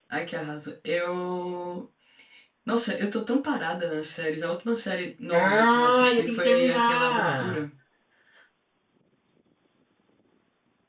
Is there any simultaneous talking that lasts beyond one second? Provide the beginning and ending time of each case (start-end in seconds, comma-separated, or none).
5.3-7.6